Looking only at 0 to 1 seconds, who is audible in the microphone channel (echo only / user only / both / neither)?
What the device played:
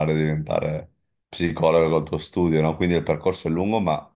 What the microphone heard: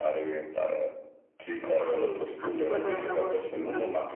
echo only